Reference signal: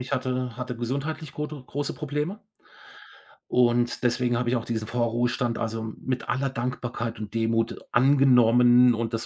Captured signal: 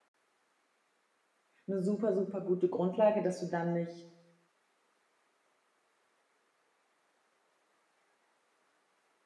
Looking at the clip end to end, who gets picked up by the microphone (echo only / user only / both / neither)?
user only